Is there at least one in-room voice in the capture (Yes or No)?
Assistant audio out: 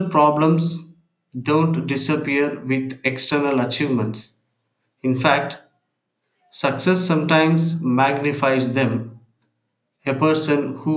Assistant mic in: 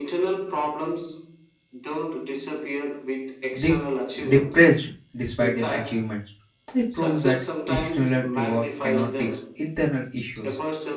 Yes